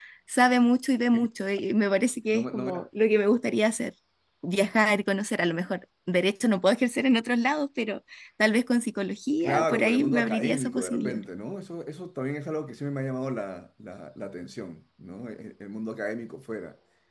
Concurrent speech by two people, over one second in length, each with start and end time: 9.4-11.2

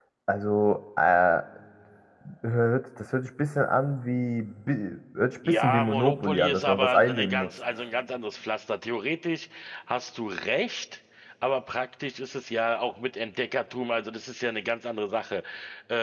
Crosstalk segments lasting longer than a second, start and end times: 5.5-7.5

